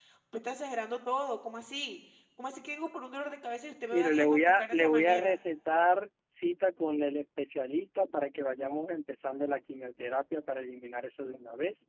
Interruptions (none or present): present